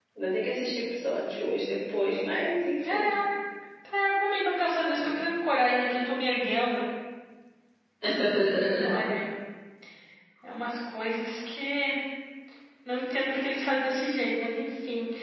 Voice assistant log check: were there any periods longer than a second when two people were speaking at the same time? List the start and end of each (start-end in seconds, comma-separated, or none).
none